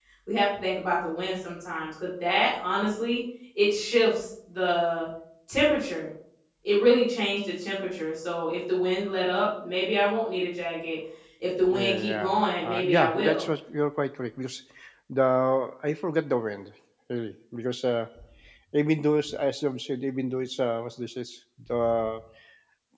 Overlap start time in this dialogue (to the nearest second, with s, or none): 12 s